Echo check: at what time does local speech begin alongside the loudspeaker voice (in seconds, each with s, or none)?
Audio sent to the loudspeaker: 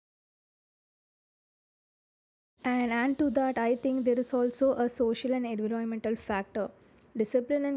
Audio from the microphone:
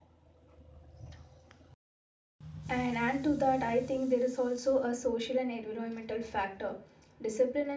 none